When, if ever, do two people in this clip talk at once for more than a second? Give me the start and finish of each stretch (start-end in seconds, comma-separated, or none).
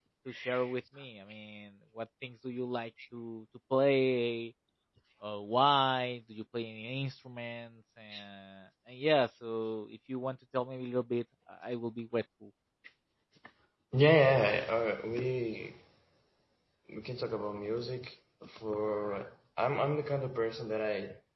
none